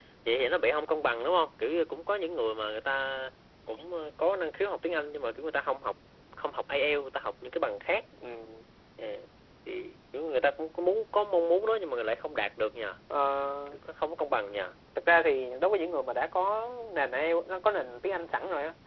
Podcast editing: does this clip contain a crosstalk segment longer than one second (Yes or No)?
No